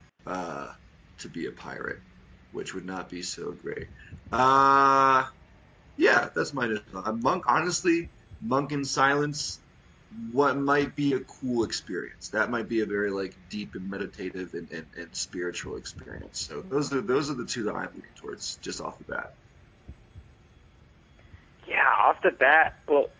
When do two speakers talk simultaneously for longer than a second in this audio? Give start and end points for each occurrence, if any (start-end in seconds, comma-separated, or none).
none